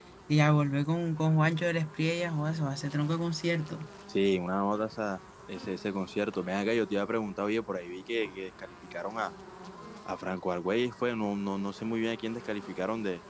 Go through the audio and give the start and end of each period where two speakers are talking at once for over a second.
none

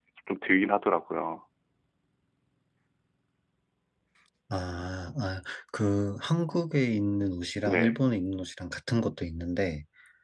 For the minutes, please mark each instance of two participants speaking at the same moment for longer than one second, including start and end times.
none

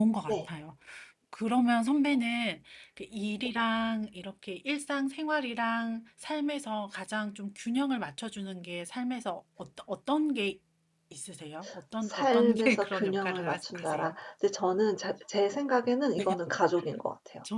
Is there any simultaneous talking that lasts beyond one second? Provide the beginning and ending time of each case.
12.1-14.1

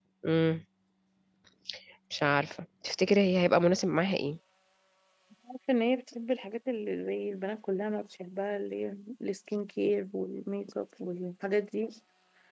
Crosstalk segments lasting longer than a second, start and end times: none

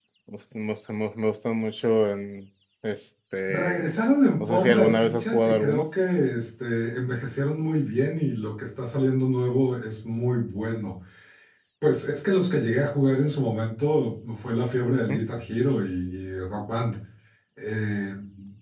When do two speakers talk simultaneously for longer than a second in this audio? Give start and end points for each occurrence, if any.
4.4-5.9

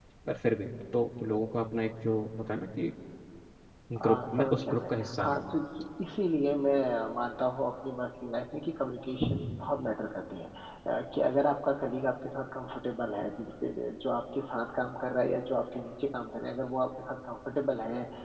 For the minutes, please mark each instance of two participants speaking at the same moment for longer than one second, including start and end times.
4.1-5.4

